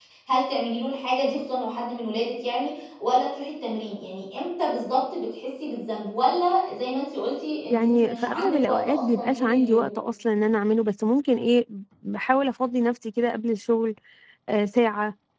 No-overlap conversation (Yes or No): No